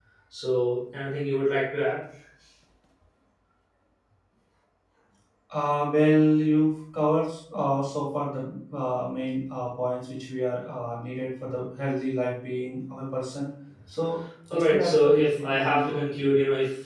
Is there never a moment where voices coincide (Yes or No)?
No